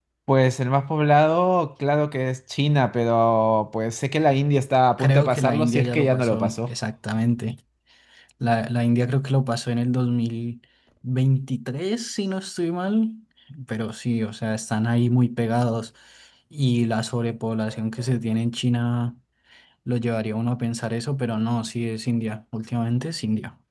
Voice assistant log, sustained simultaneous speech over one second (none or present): present